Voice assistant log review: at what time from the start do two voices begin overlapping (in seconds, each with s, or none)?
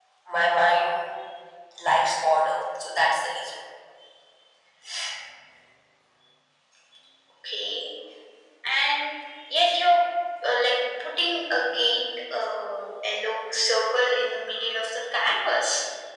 none